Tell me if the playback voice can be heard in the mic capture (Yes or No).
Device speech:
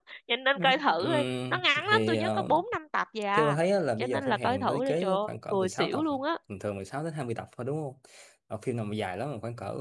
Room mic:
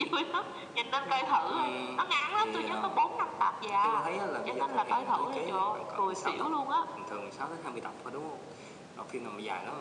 Yes